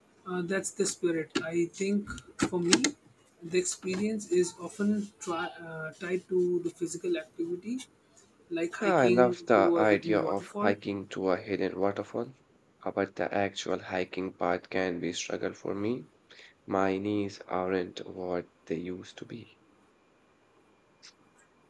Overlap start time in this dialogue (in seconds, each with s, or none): 8.8 s